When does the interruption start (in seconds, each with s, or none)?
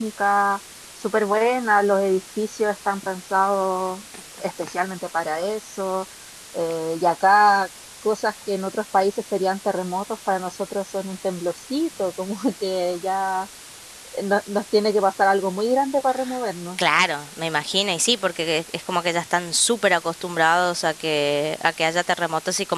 none